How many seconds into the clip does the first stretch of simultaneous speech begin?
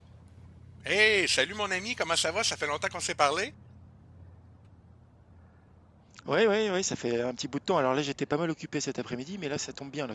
none

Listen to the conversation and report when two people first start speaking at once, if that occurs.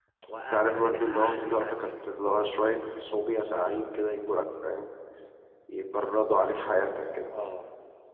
0.5 s

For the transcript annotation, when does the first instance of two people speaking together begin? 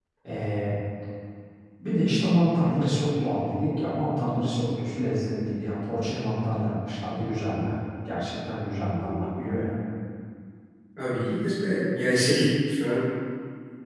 none

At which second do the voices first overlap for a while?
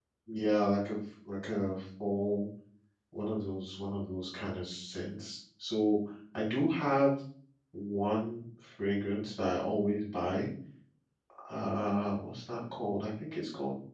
none

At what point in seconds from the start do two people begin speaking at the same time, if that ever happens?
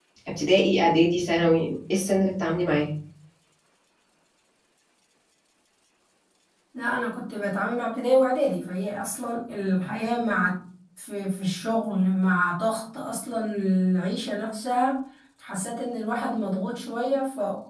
none

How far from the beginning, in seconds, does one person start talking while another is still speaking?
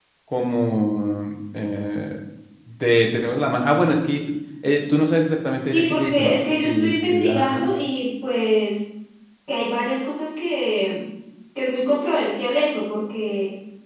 5.7 s

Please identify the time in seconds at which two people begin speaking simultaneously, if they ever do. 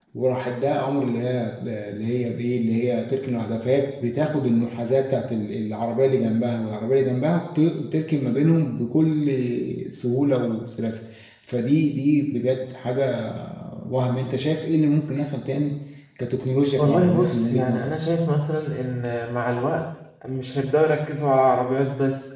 16.8 s

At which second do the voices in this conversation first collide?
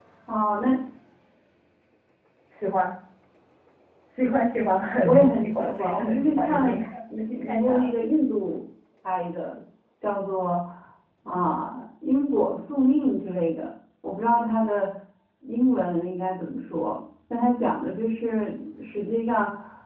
5.0 s

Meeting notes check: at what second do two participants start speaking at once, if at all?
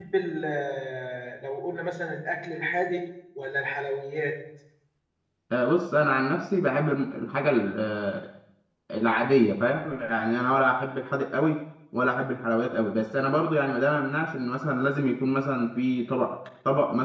none

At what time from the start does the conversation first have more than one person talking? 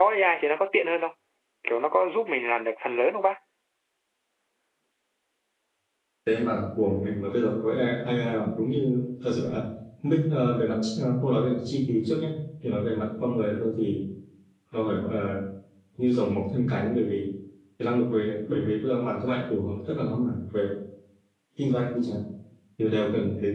none

